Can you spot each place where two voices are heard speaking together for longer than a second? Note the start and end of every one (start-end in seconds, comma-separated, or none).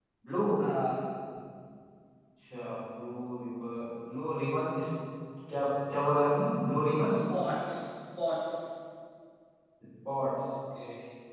none